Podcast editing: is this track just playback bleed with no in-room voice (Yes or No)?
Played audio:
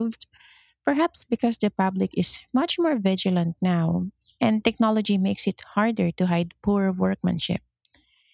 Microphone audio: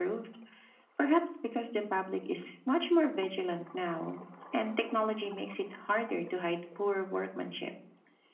Yes